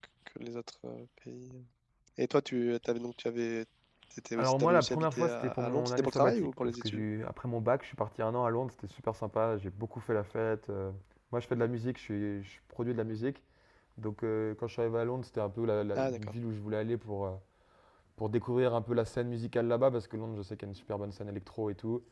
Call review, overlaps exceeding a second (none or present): present